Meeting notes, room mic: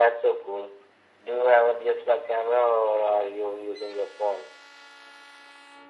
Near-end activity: none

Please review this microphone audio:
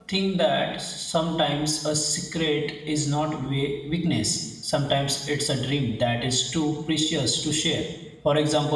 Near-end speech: present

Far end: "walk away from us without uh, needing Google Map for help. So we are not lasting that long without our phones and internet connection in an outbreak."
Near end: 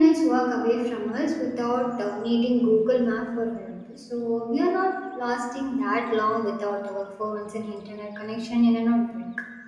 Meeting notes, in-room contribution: none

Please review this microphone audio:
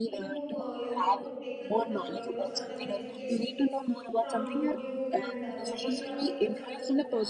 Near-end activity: present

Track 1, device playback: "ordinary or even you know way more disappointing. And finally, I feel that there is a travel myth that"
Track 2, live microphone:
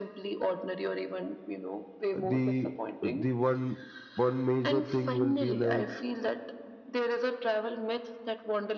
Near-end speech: present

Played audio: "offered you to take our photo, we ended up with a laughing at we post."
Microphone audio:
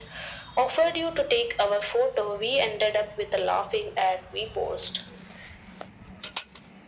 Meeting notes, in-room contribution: none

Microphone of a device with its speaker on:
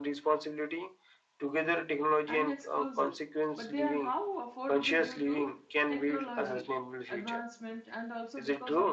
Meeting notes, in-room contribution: present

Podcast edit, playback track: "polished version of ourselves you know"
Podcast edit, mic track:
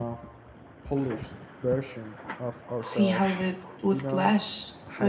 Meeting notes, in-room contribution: present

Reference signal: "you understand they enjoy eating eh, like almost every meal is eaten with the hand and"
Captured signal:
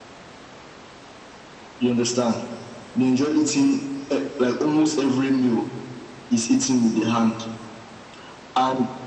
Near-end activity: none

